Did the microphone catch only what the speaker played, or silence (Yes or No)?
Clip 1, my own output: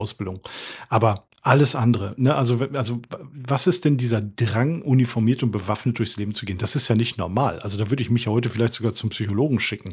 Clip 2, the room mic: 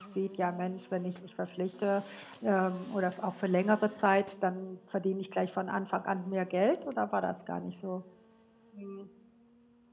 No